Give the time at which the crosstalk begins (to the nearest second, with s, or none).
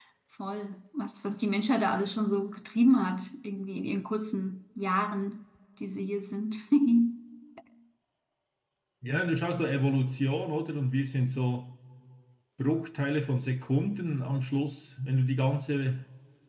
none